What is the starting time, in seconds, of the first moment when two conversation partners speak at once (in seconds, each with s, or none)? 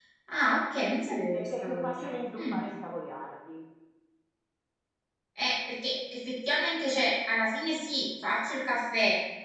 1.3 s